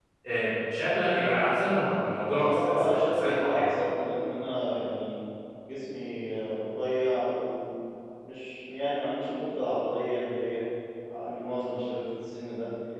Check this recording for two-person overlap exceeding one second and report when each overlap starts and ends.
2.2-3.7

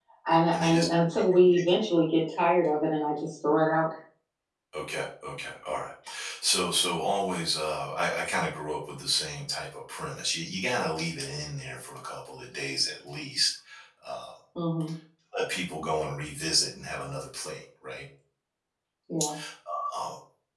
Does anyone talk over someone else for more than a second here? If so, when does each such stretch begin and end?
none

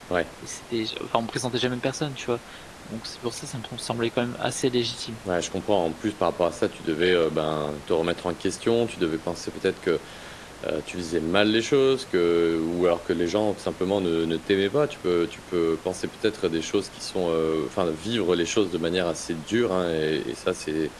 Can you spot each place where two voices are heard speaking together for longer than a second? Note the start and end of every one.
none

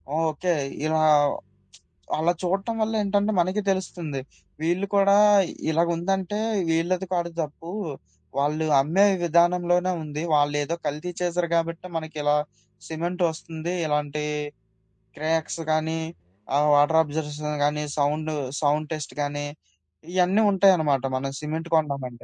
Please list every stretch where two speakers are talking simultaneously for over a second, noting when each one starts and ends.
none

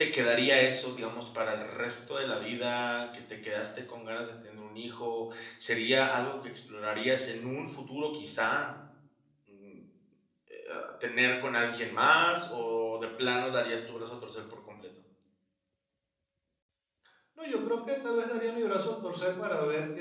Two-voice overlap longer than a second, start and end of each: none

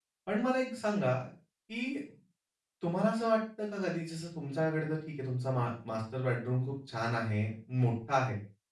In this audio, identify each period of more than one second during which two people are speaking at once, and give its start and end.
none

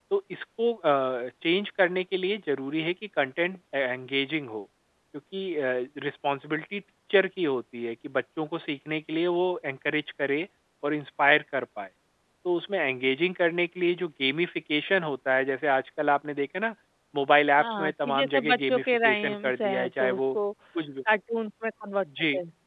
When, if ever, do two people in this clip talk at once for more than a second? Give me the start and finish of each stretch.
17.6-20.4

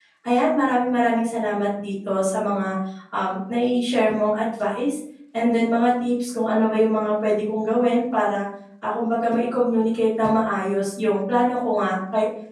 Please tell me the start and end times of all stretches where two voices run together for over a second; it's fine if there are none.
none

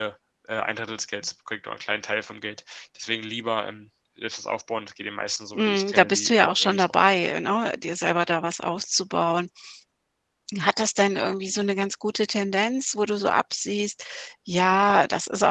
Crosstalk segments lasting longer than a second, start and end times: 5.5-7.0

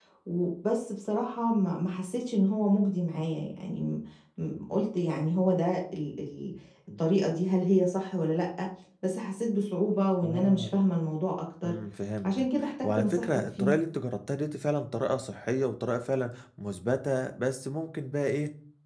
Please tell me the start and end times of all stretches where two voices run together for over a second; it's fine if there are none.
12.2-13.7

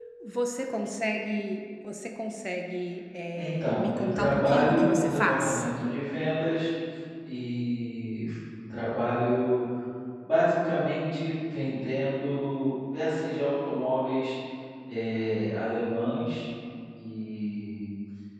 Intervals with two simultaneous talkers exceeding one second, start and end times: 3.3-5.6

